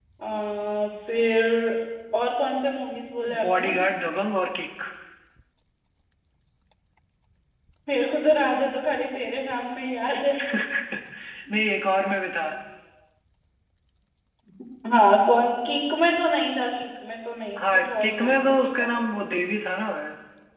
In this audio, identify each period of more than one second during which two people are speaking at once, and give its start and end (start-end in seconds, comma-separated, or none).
17.6-18.9